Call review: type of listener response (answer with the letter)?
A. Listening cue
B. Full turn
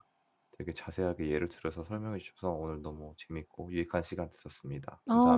B